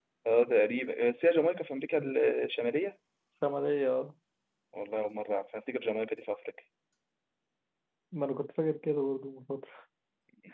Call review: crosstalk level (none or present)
none